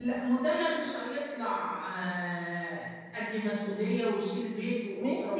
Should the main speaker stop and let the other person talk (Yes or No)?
Yes